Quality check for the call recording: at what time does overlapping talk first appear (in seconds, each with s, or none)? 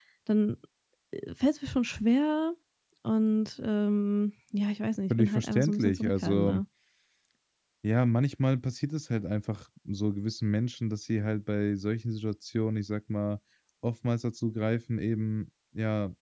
5.1 s